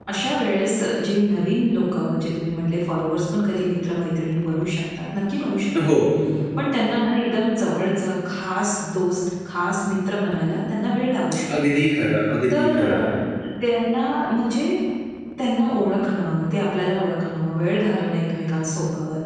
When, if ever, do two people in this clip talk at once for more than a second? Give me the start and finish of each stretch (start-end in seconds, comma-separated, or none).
none